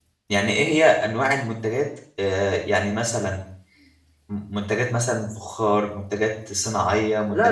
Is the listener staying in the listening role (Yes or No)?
No